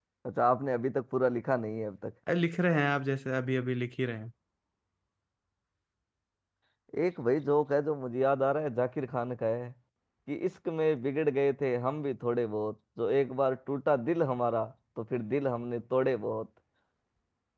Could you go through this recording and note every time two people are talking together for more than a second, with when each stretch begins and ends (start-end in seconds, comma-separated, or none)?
none